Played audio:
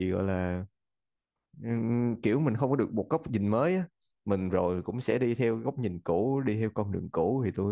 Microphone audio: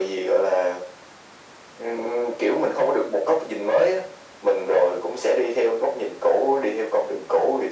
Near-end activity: none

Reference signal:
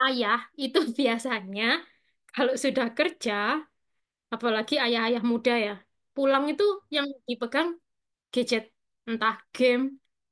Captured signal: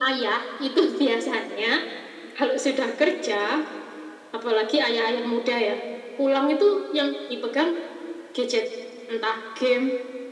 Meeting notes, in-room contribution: none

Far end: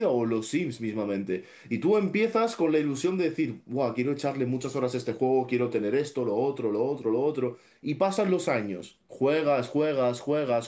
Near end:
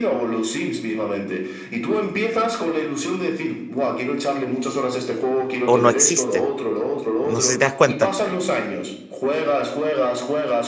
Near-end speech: present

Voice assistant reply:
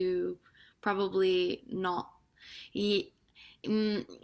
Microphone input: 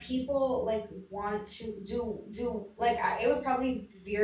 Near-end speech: present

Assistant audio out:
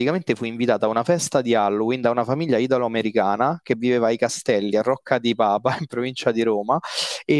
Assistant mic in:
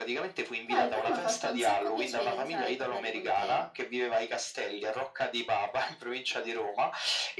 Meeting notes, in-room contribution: present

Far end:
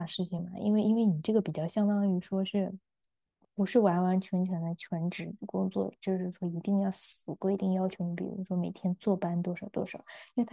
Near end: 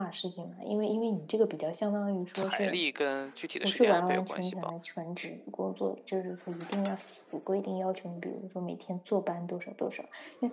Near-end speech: present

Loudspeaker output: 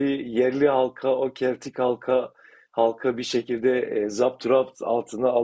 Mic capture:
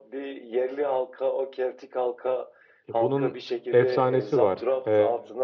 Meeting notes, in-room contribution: present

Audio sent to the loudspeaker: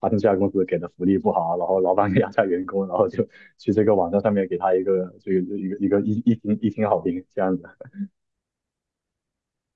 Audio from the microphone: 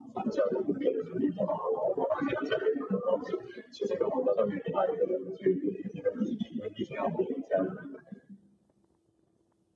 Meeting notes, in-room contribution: none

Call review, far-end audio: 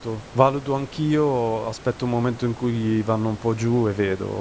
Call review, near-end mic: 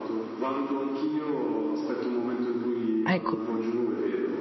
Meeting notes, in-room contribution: present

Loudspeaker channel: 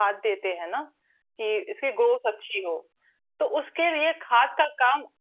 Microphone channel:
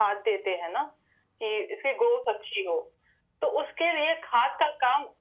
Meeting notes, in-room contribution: none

